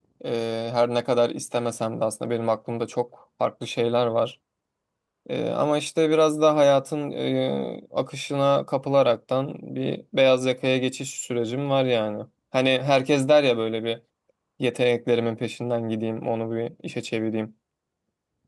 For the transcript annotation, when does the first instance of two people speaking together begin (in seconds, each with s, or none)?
none